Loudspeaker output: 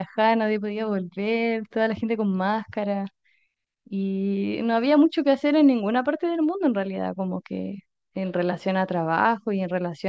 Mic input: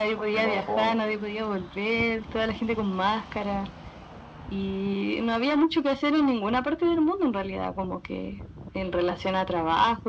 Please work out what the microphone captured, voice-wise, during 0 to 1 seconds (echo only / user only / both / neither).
both